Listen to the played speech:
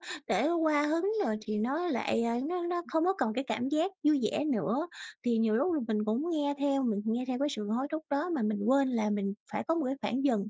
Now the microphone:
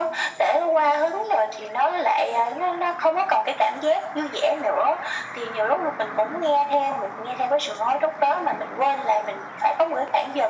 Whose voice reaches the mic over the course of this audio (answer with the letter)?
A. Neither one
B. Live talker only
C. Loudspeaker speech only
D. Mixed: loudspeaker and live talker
C